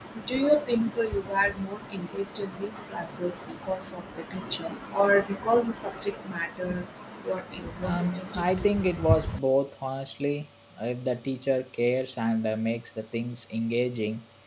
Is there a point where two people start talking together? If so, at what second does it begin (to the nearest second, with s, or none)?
8 s